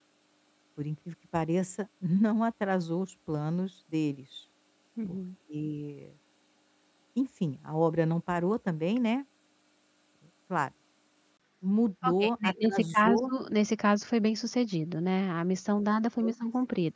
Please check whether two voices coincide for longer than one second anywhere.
Yes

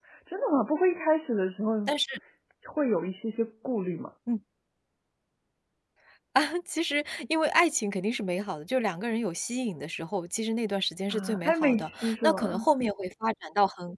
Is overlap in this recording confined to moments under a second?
No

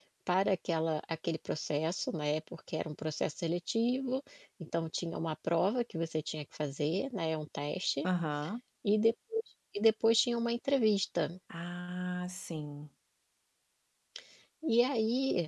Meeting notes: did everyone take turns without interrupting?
Yes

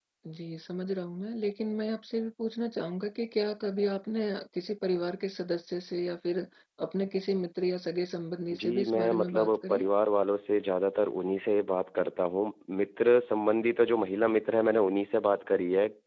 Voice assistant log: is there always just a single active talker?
No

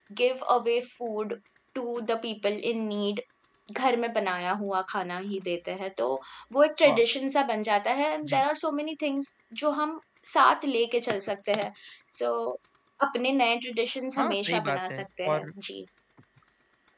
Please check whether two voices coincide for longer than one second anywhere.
Yes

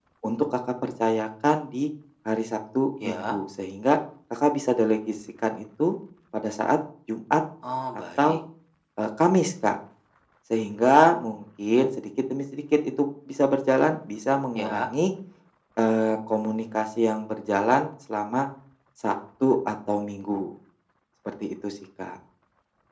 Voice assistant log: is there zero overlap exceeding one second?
Yes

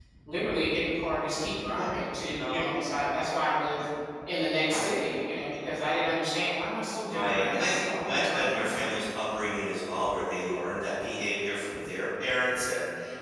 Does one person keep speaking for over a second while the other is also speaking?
Yes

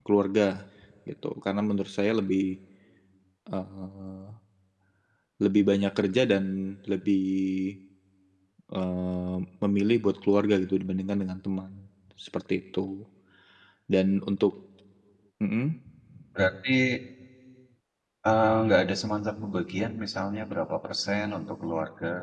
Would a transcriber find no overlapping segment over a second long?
Yes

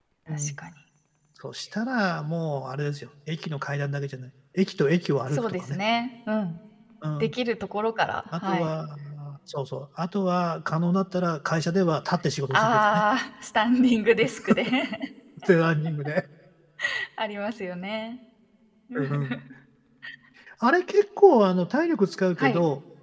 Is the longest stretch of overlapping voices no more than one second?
Yes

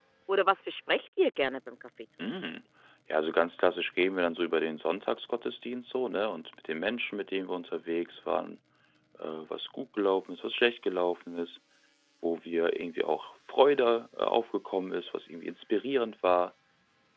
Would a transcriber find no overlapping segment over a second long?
Yes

